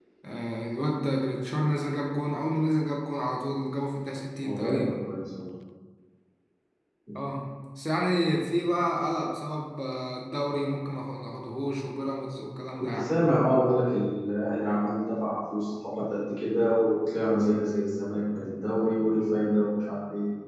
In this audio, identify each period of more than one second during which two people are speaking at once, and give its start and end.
none

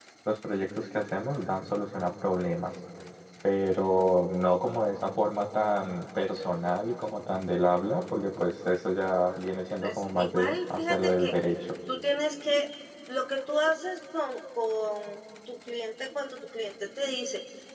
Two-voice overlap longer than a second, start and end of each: 9.8-11.3

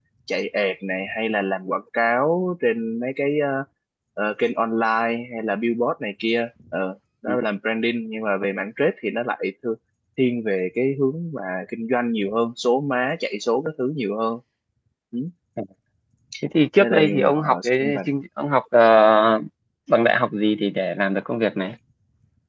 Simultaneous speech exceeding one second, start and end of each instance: 16.8-18.0

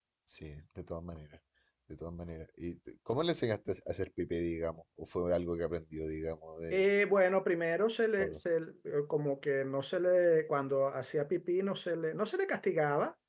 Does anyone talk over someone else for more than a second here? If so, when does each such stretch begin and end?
none

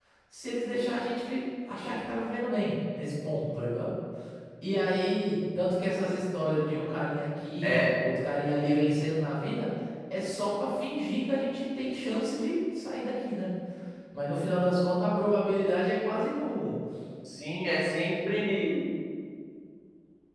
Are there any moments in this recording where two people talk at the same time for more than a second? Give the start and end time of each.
none

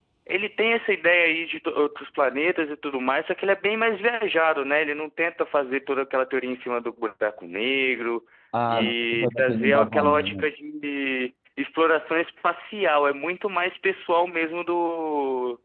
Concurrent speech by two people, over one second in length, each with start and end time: 8.7-10.5

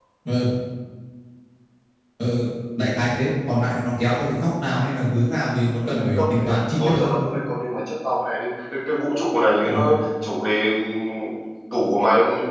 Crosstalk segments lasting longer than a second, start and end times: 5.9-7.1

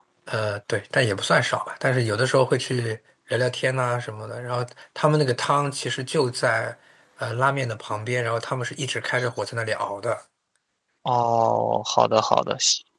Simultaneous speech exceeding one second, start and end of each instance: none

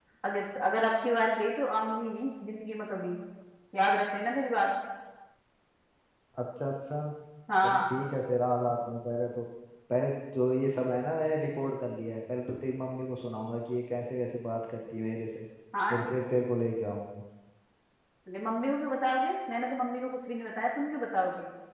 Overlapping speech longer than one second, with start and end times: none

